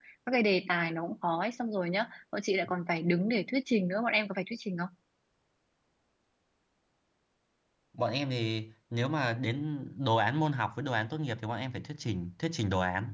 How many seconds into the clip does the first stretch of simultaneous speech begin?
none

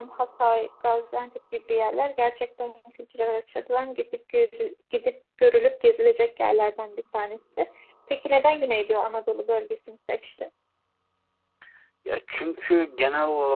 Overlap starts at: none

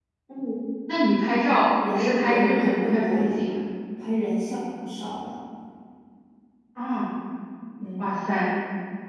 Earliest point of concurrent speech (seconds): 1.8 s

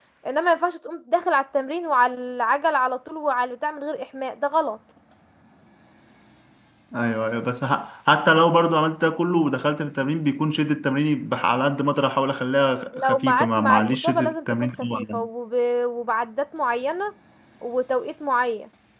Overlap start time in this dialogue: 12.9 s

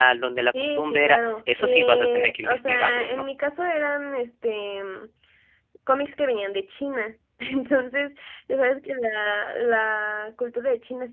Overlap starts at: 0.6 s

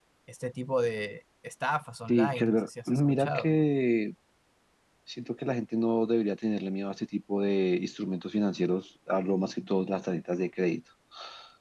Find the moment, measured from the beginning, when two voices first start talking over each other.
2.1 s

